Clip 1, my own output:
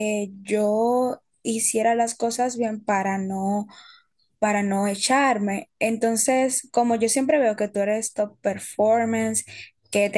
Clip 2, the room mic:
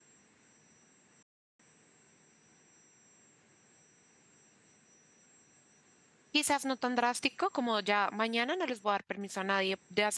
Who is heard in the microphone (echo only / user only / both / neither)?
user only